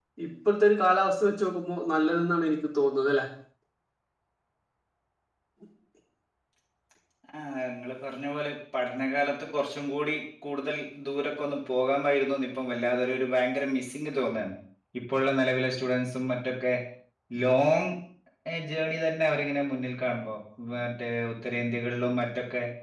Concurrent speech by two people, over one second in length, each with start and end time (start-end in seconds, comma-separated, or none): none